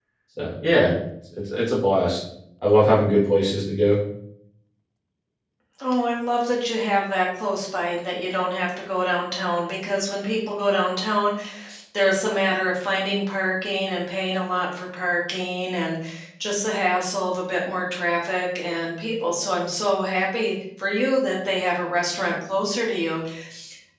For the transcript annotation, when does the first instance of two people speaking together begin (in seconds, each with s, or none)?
none